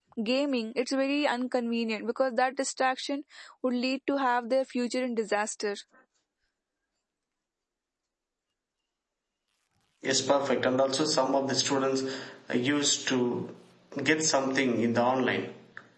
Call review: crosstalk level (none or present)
none